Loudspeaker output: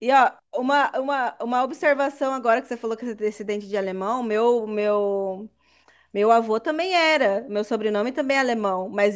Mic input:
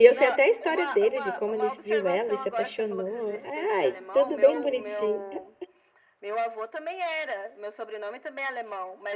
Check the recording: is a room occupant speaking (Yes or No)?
Yes